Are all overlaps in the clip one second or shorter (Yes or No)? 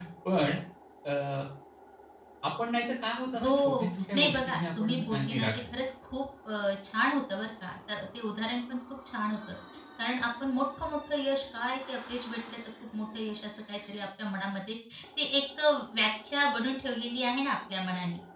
No